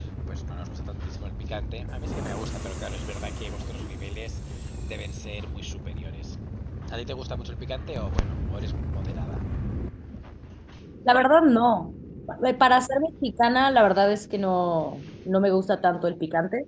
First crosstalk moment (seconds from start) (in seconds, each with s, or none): none